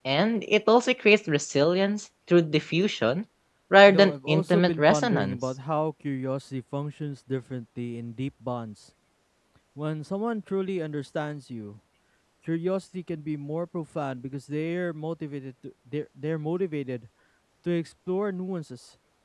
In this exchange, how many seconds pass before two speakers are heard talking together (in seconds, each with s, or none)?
3.9 s